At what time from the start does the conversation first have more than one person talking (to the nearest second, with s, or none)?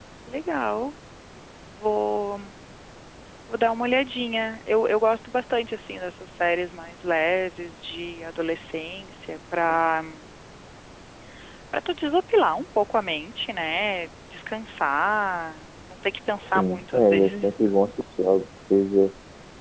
16 s